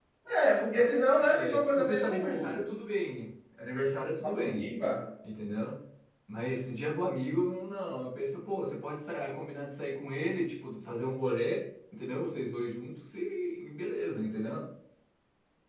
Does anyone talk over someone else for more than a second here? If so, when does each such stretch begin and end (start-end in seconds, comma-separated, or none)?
1.1-2.7